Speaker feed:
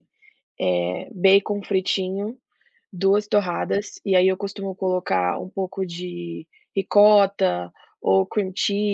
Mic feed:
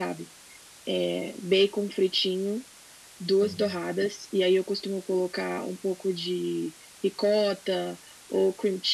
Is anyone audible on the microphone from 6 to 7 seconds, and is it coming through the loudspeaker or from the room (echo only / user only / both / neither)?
echo only